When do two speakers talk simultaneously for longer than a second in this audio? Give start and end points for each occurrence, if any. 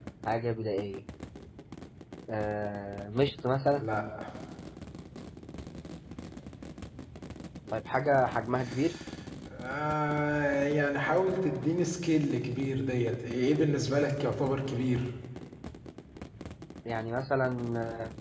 none

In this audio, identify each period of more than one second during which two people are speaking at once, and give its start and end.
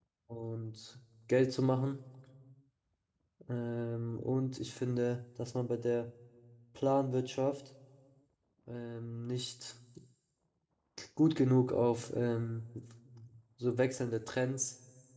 none

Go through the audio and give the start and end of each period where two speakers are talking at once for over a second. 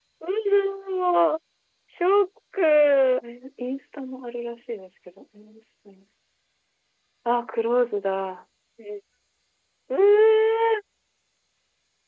none

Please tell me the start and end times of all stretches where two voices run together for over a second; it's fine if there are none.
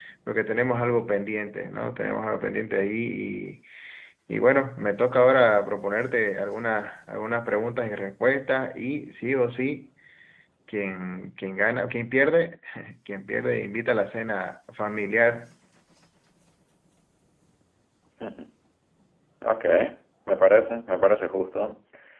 none

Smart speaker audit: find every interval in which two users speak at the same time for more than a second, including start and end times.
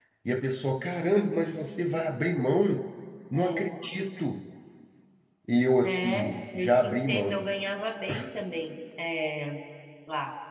5.8-7.5

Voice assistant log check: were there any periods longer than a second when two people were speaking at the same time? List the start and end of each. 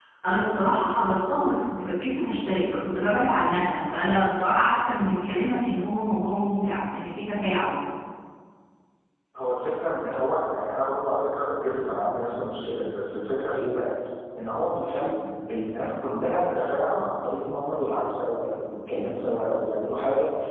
none

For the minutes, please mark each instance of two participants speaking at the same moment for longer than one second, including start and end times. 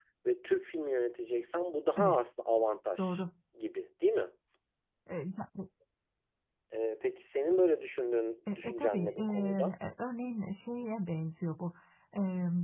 8.5-9.8

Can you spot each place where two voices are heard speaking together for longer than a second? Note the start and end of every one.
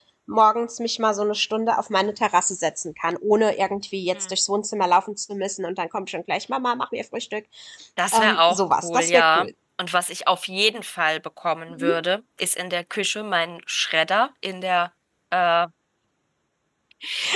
8.1-9.5

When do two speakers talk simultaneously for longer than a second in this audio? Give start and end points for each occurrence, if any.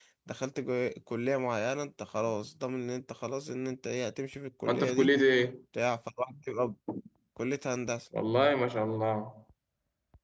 none

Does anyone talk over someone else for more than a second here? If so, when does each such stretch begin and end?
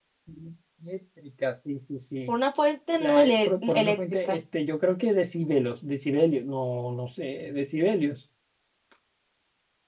3.0-4.4

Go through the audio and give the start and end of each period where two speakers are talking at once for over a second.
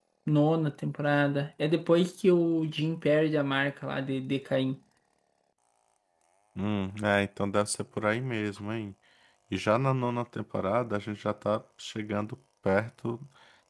none

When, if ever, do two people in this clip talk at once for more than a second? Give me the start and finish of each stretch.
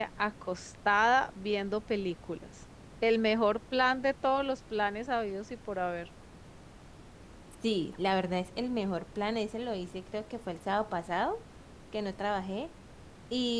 none

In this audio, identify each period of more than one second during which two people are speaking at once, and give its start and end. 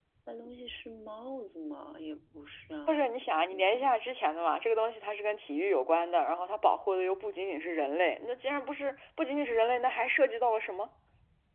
none

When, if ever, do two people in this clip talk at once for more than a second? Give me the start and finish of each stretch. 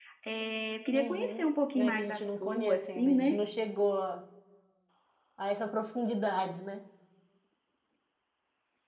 0.9-3.4

